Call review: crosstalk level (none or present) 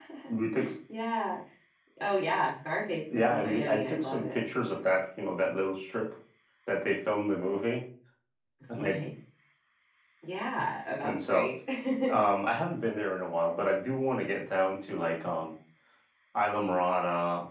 present